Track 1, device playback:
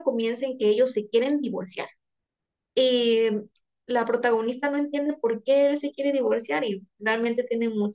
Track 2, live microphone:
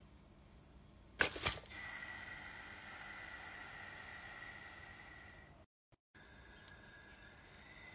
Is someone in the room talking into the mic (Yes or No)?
No